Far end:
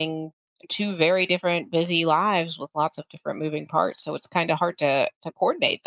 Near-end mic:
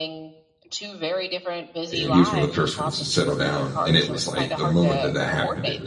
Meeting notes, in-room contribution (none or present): present